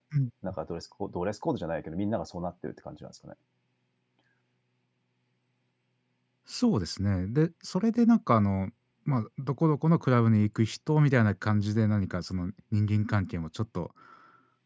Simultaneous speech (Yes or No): No